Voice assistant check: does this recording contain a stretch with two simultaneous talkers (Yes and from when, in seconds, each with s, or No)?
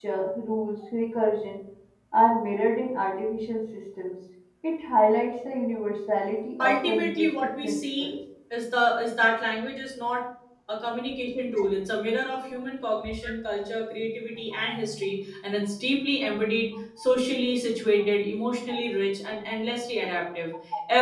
Yes, from 6.6 s